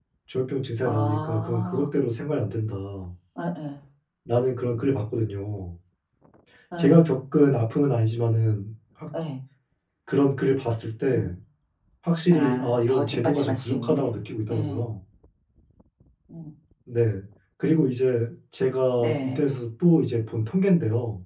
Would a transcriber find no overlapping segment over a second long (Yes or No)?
No